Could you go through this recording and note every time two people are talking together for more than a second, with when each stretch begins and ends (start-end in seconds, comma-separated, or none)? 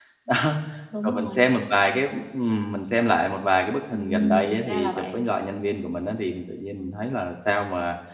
3.9-5.2